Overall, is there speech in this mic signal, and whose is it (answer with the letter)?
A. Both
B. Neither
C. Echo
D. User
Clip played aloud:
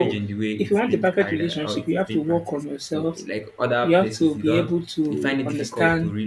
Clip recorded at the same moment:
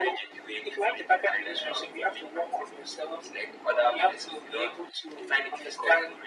C